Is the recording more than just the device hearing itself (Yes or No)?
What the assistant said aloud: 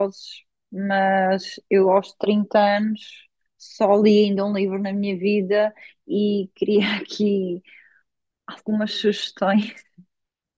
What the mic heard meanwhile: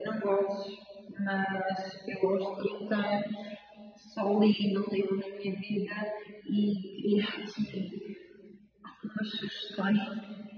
No